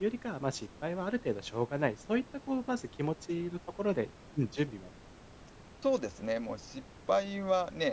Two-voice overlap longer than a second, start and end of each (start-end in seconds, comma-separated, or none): none